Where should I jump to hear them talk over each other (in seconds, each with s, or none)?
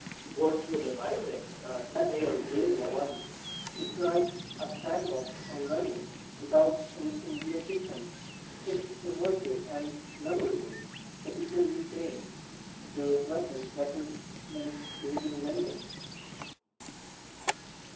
2.0 s